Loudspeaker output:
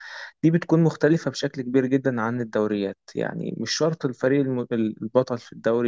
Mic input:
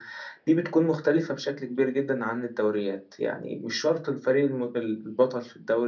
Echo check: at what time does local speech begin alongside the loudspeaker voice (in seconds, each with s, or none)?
none